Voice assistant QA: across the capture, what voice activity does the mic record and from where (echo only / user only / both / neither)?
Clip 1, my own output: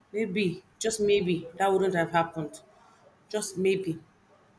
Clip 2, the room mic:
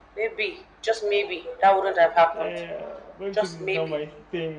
both